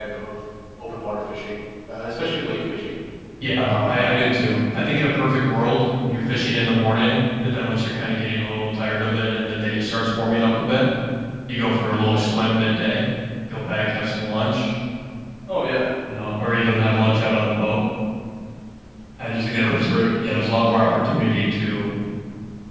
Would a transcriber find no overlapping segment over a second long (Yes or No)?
Yes